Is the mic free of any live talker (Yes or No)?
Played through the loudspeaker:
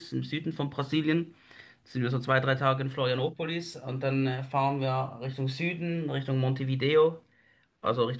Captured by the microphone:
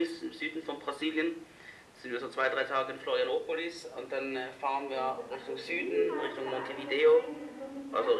No